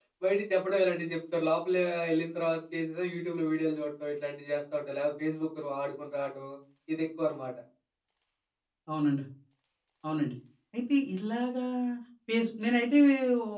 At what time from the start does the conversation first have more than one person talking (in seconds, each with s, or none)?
none